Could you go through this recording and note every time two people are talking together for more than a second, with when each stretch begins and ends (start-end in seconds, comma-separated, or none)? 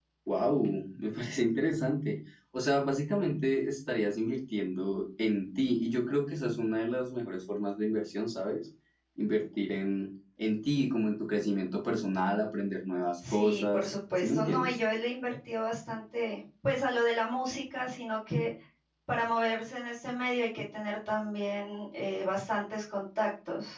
13.3-14.7